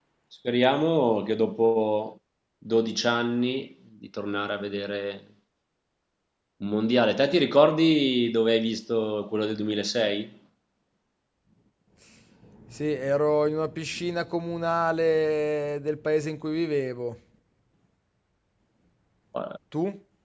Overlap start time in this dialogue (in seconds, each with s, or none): none